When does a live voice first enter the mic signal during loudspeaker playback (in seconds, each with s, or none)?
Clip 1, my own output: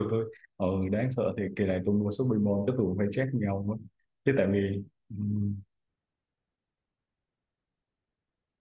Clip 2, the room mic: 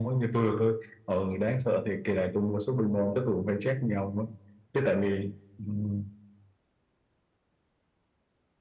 none